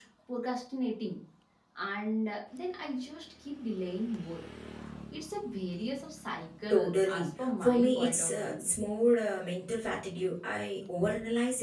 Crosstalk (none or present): present